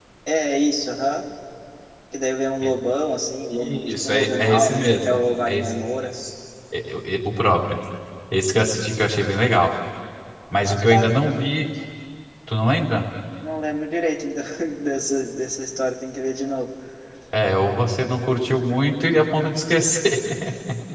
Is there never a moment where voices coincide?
No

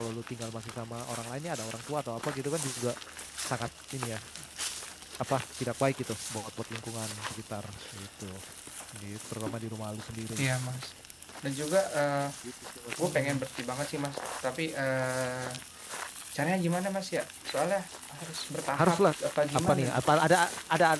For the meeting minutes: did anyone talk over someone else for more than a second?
No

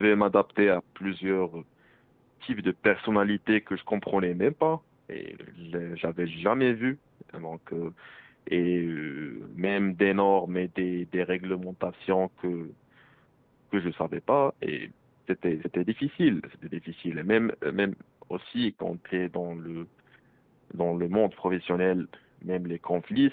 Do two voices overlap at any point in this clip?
No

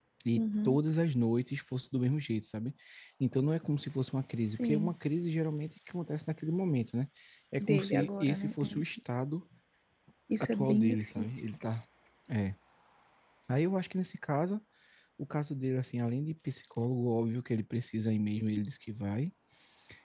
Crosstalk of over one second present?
Yes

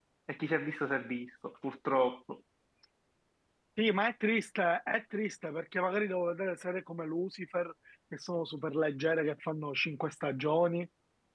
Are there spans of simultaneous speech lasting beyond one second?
No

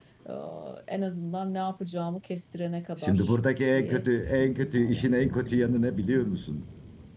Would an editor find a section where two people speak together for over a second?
Yes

